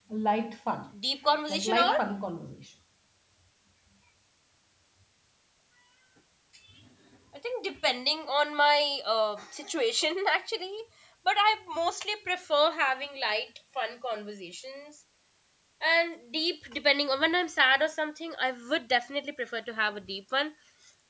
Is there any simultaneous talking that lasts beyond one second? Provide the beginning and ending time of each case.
none

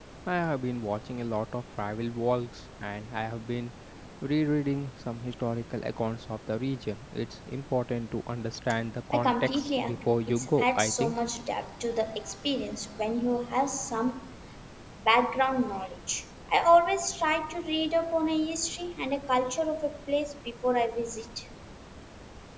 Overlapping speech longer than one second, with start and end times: 9.1-11.2

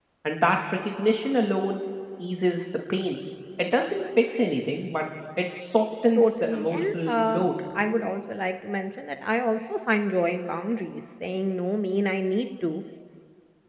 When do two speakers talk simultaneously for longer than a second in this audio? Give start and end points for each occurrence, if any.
6.2-7.5

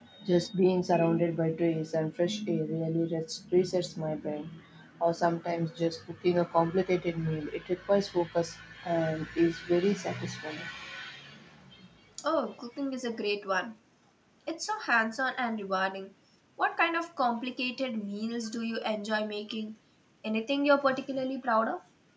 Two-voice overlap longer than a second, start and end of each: none

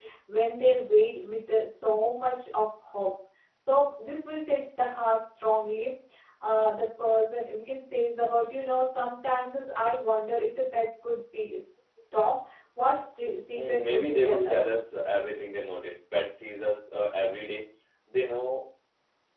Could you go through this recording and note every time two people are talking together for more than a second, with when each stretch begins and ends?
13.6-14.9

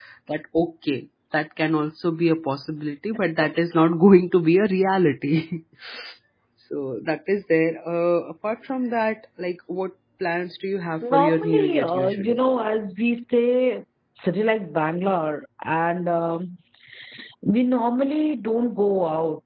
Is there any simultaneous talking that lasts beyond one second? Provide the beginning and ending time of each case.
11.0-12.4

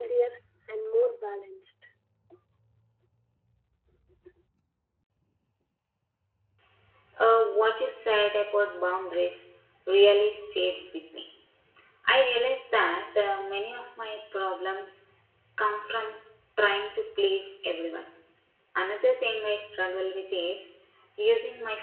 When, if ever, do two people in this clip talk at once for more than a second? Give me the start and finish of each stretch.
none

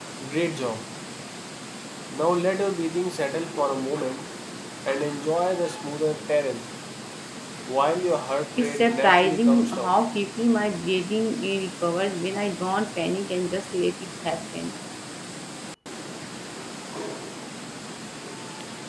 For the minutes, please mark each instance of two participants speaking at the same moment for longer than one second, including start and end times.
8.6-9.9

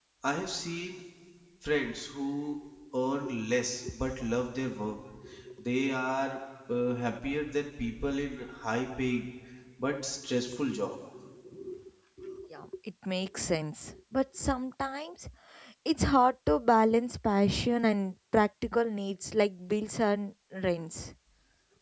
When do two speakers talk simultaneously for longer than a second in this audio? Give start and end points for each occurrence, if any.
none

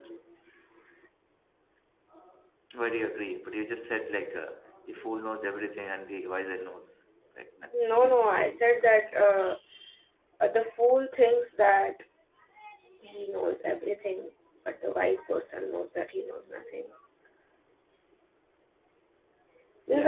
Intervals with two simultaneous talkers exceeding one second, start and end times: 7.7-9.1

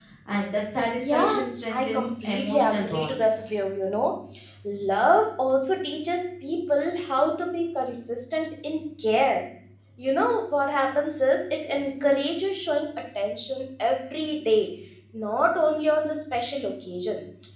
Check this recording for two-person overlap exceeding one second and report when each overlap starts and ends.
1.0-3.5

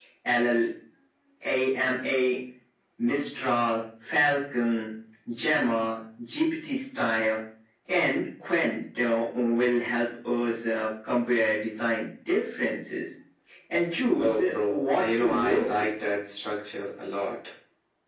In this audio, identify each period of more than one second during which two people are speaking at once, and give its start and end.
14.2-15.9

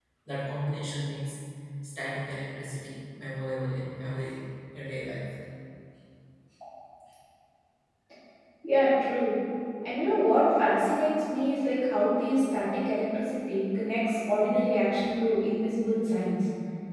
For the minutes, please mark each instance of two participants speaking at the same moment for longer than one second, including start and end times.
none

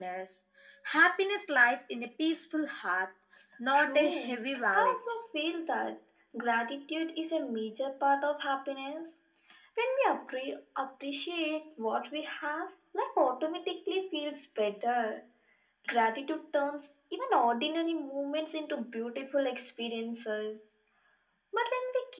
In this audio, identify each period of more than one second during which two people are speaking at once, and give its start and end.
3.7-5.0

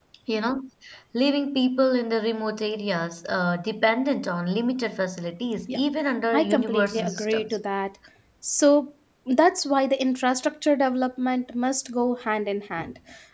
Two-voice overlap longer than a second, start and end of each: 6.3-7.6

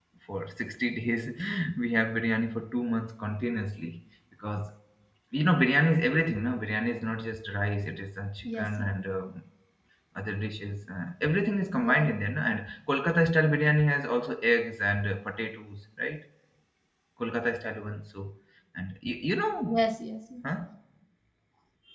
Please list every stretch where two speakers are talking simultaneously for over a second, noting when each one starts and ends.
none

